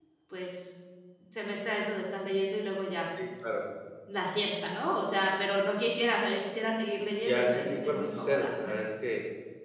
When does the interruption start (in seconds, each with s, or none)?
7.2 s